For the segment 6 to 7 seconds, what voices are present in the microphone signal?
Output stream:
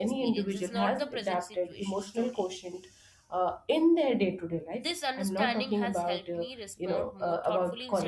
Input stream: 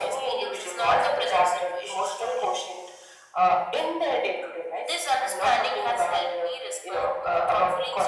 echo only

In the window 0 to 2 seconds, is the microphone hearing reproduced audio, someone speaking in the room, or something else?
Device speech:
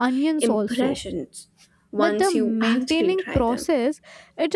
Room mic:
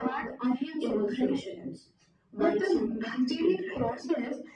echo only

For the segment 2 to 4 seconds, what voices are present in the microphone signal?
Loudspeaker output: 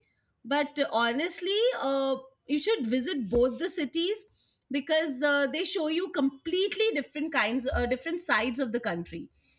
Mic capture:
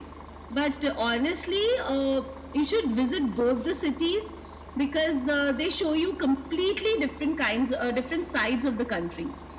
echo only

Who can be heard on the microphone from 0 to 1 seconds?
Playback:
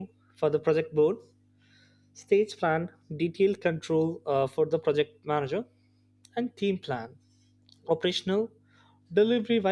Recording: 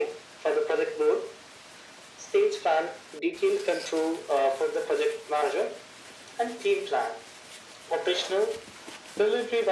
echo only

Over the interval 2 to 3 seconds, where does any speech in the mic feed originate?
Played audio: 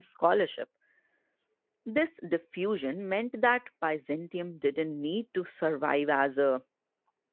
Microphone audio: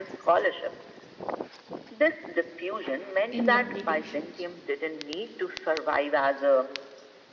echo only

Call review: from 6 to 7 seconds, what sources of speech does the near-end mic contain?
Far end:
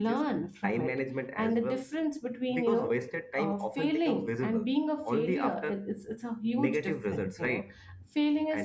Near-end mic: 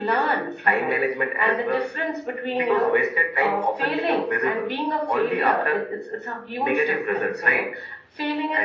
echo only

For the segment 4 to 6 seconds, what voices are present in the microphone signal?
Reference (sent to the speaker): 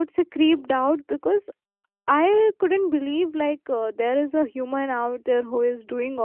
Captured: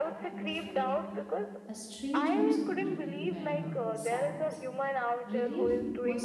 both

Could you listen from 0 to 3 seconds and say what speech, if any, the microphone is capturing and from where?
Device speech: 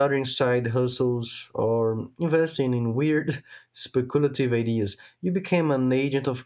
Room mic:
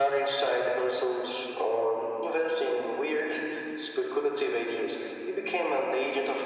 echo only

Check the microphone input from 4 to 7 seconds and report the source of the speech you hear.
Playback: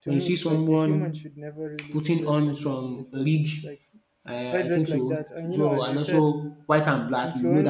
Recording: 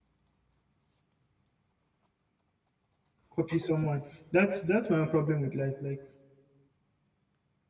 user only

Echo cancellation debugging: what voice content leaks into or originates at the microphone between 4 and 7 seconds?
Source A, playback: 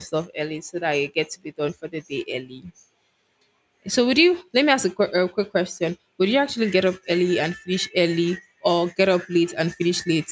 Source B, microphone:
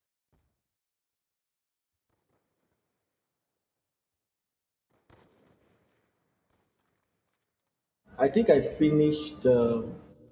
neither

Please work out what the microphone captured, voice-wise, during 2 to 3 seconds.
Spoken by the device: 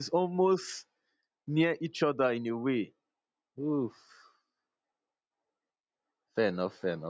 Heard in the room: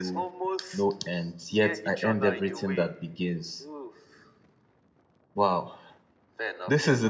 both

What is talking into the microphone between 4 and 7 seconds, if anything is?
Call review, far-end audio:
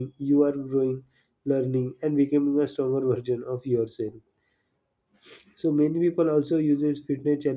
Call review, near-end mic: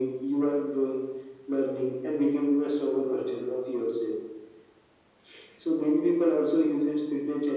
echo only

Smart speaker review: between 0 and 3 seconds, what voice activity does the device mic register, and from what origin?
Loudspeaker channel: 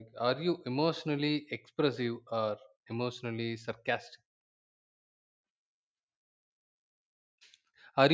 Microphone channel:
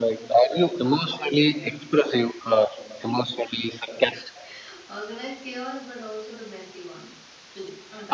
both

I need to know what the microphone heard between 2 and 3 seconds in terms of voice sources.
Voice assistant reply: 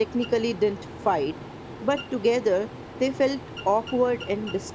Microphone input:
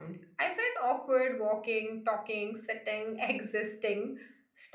user only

